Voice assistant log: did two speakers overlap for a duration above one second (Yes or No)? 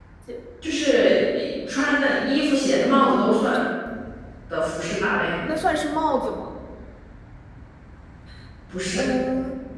No